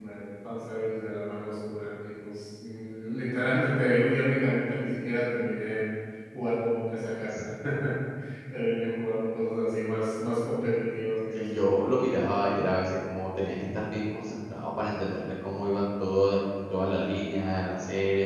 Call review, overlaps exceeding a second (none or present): none